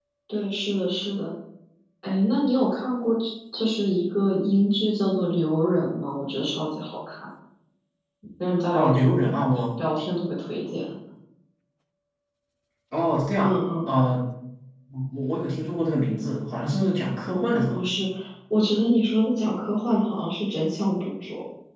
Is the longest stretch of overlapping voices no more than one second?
Yes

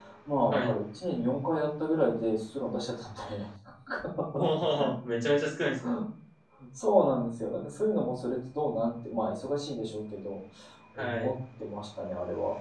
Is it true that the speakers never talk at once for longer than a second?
Yes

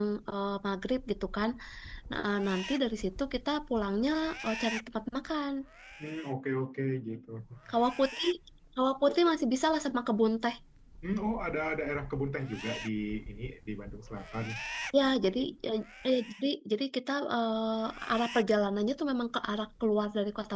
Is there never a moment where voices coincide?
Yes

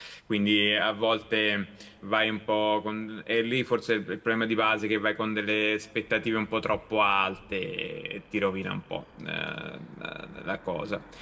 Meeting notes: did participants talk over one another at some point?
No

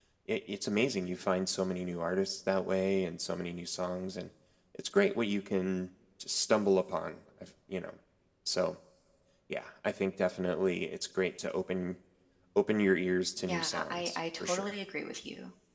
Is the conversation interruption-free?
No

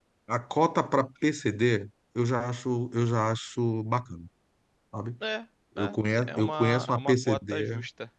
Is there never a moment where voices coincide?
No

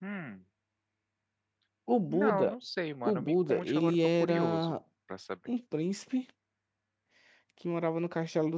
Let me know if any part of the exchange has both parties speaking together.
Yes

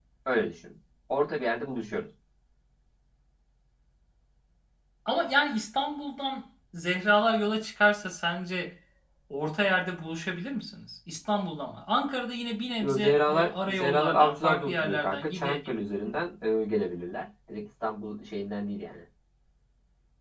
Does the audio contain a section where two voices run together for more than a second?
Yes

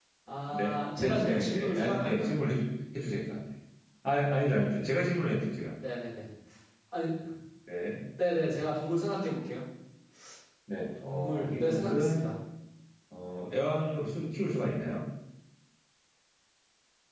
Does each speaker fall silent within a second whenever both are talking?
No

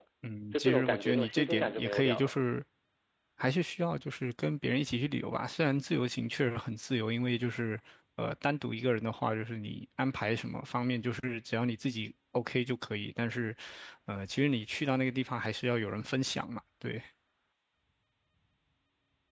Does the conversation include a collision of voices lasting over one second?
Yes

